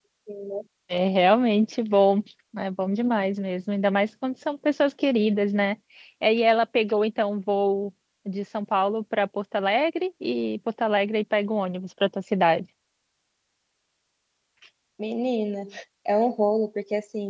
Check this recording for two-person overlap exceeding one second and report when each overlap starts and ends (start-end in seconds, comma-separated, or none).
none